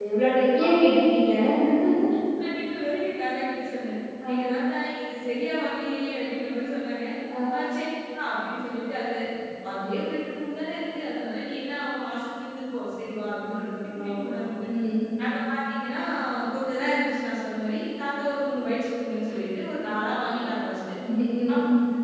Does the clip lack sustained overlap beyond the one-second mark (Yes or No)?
Yes